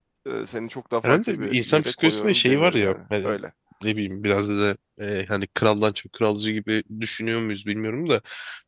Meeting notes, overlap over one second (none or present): present